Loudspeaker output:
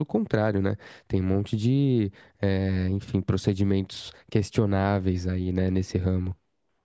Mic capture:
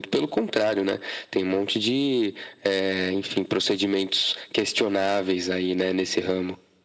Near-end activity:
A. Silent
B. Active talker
A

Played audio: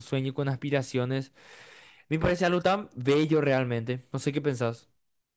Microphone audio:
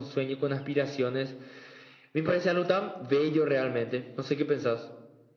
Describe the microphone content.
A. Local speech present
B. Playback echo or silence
B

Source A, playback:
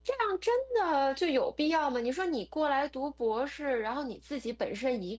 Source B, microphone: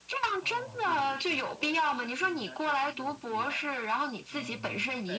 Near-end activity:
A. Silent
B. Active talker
B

